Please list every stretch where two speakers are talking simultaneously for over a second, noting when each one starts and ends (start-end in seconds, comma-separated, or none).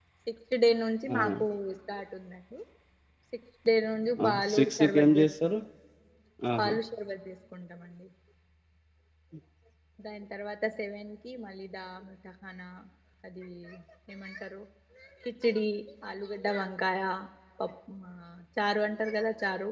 4.2-5.5